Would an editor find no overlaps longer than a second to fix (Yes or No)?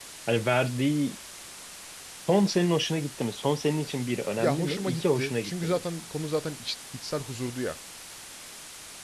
No